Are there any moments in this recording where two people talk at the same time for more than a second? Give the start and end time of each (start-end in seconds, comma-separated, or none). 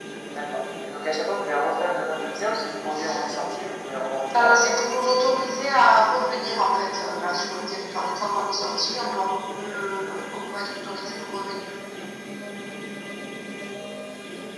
none